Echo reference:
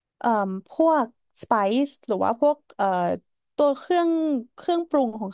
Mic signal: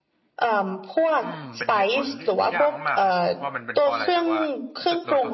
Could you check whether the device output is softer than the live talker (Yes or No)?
No